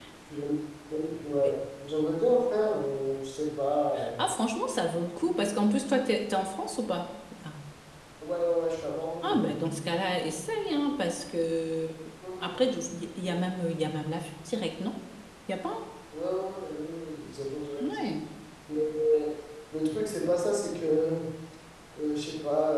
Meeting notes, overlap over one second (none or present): none